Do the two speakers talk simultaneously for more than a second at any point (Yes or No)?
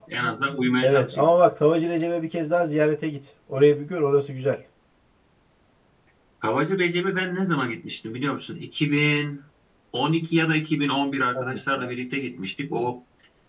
No